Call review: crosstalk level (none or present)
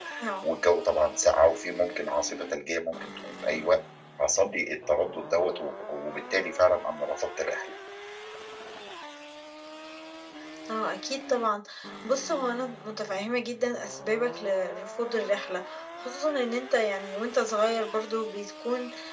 none